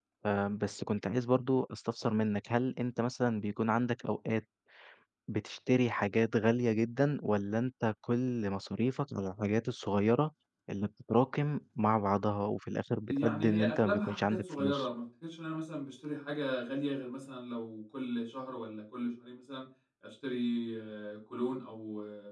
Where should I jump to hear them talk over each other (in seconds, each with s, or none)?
13.1 s